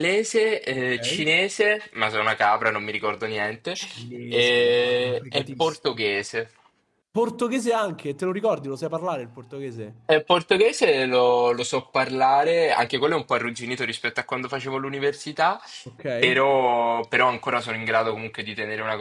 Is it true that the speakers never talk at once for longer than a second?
No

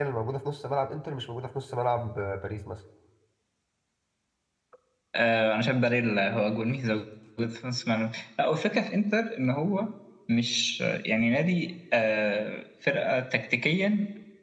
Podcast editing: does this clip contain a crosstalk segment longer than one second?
No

